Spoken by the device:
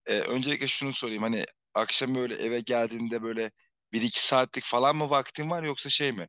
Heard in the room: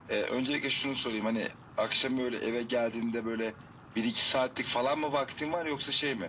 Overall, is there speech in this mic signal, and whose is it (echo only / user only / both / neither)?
echo only